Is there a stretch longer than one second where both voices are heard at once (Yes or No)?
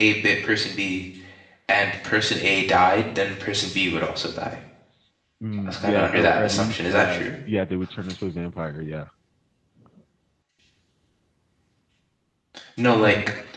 Yes